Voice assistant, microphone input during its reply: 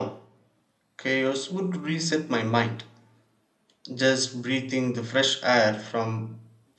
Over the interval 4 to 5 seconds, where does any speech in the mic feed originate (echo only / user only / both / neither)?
user only